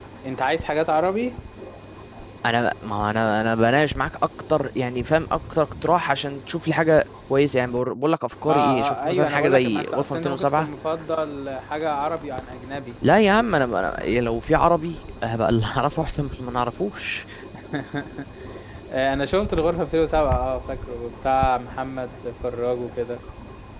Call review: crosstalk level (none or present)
present